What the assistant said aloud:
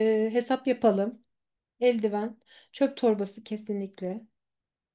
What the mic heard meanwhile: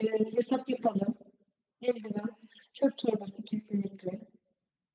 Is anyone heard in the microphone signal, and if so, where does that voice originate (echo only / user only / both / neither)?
echo only